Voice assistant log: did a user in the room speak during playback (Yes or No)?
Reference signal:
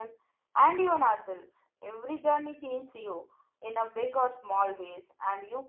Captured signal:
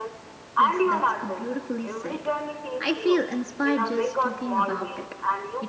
Yes